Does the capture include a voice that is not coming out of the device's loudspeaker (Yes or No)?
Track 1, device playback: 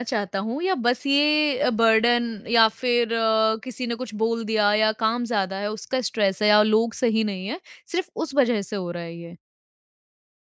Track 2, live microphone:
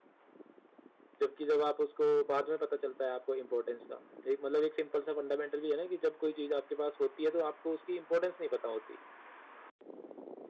Yes